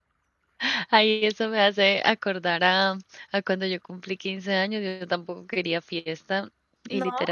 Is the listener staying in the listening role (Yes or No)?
Yes